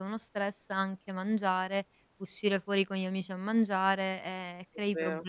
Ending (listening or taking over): listening